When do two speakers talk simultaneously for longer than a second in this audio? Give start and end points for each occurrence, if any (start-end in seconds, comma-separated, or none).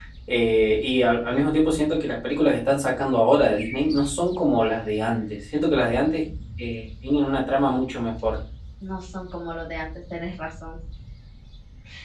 none